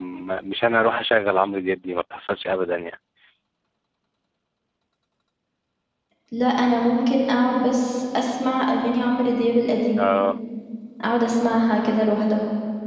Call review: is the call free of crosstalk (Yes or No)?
Yes